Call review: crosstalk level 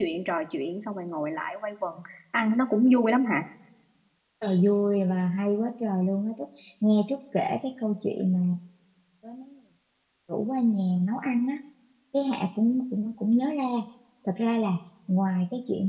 none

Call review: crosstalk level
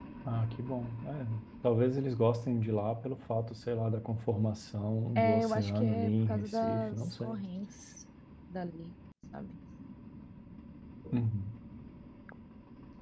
present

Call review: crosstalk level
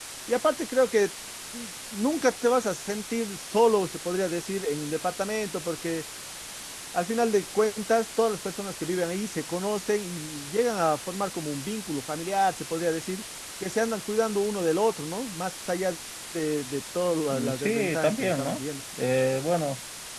present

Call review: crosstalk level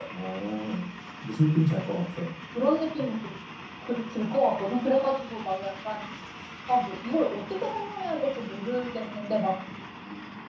none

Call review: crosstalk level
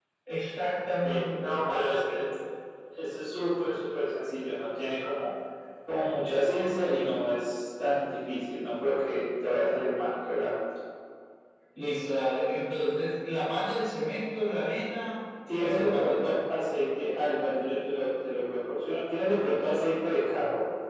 present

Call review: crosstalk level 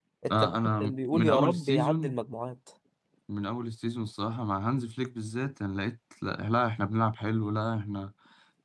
present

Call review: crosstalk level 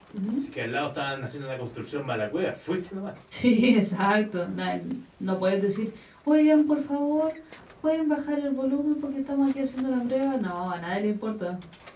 none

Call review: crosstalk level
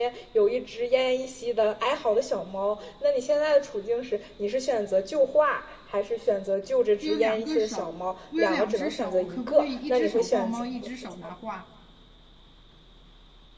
present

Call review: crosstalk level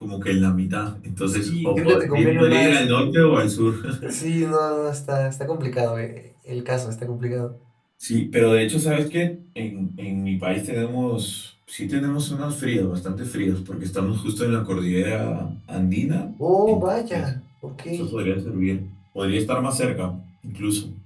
present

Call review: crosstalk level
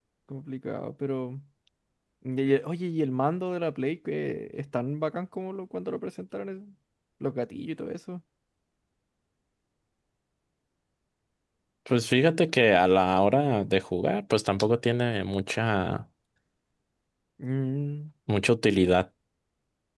none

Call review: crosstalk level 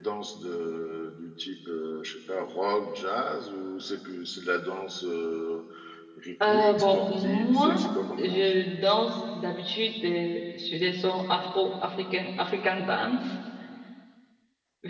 present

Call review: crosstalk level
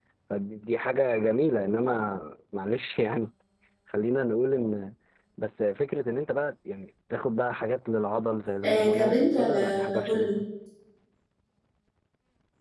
present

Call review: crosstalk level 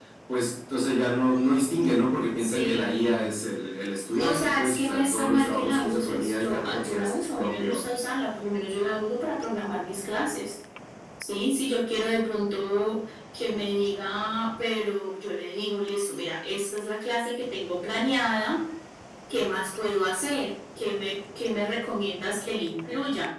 present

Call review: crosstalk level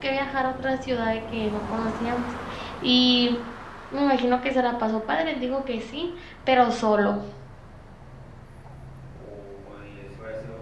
none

